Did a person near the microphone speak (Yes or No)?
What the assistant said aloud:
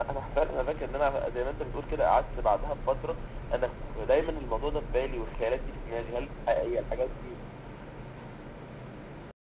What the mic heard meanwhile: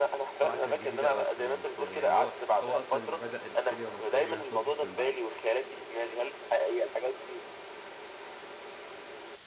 Yes